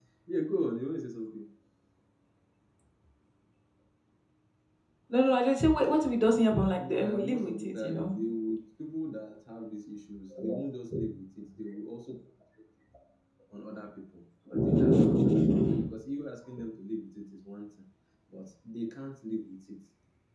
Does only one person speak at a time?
No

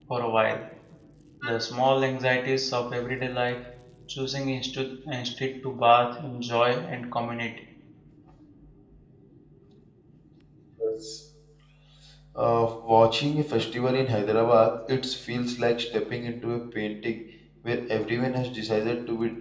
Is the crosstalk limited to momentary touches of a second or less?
Yes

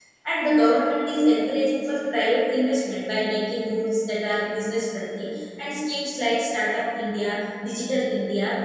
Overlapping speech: No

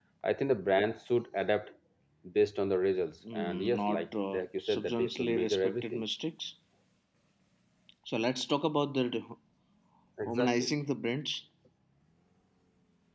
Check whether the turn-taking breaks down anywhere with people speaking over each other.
Yes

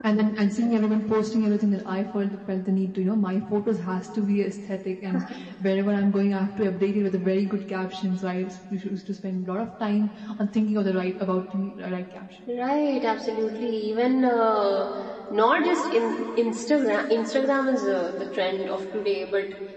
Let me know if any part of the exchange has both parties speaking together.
No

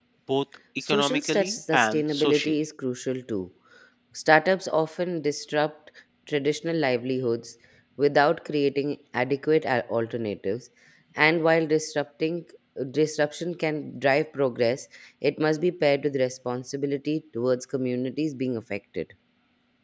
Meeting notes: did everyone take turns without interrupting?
No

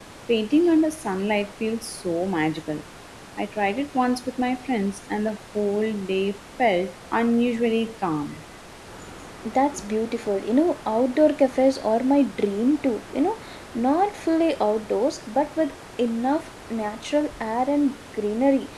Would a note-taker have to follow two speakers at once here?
No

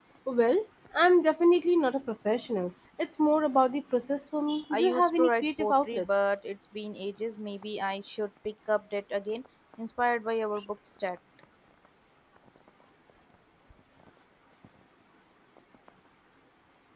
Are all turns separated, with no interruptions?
No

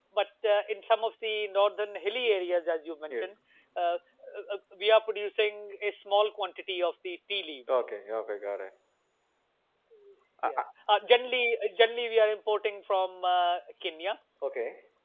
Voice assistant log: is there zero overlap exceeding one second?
Yes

